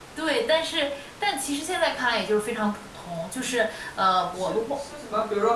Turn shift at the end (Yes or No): Yes